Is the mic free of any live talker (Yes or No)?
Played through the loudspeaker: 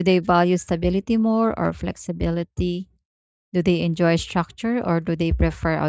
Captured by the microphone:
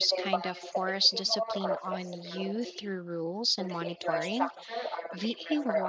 No